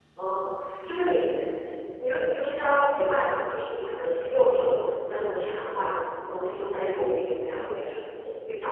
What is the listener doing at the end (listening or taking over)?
listening